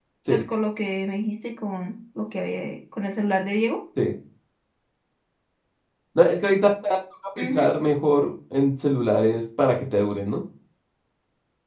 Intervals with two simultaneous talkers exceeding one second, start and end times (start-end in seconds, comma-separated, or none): none